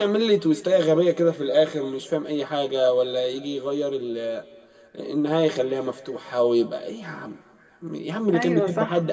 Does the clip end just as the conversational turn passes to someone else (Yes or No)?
No